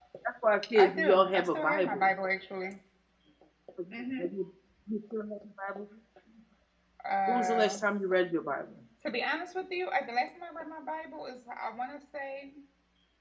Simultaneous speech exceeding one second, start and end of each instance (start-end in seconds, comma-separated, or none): 0.8-2.1